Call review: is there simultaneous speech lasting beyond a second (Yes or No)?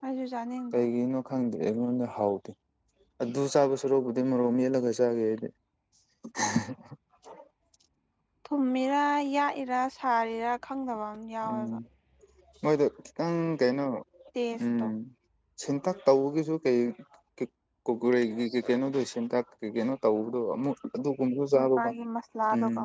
No